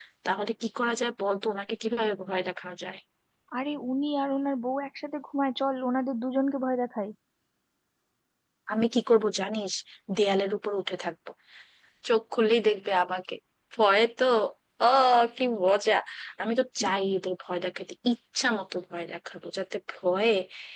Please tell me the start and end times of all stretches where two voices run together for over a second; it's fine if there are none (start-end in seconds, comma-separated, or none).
none